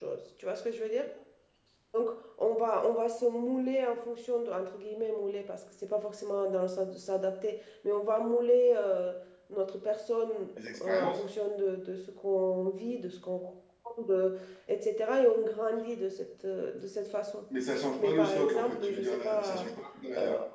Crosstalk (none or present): present